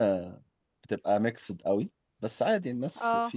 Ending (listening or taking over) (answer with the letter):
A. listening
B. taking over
A